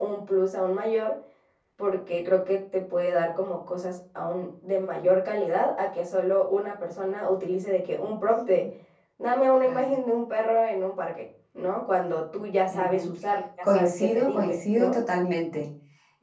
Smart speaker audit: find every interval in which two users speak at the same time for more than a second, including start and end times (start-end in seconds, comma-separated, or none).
13.6-15.0